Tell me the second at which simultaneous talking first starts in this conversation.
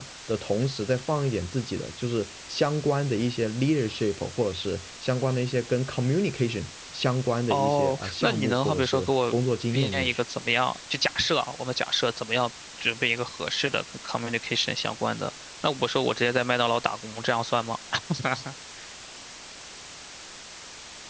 7.5 s

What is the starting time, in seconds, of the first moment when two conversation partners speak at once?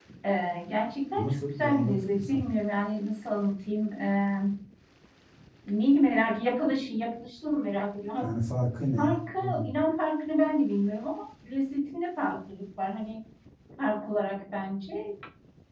1.2 s

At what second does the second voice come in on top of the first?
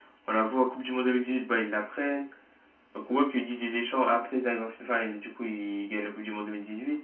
none

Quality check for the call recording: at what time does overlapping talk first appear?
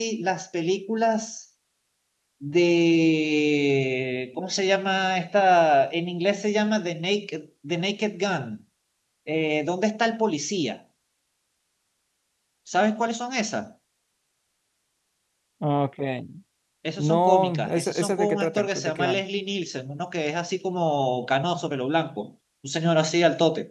17.0 s

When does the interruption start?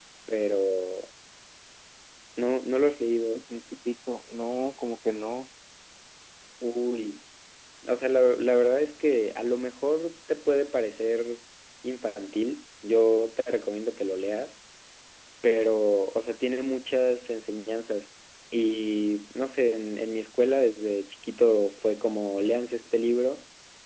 none

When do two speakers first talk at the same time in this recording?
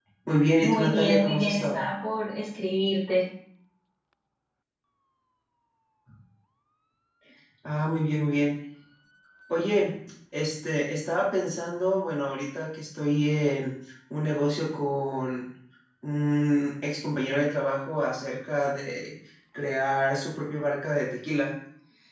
0.6 s

